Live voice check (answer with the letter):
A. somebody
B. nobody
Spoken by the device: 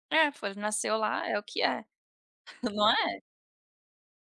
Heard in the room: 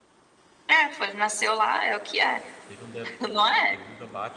A